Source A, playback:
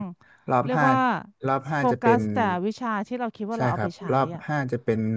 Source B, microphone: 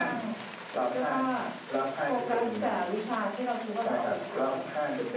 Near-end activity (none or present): none